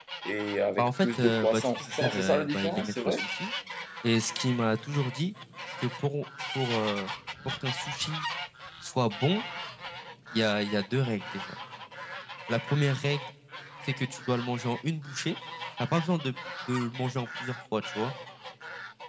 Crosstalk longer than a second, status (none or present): present